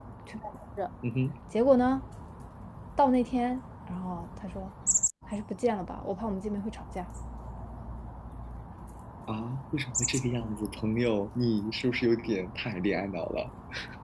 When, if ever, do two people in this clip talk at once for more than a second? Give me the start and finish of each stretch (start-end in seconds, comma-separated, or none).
none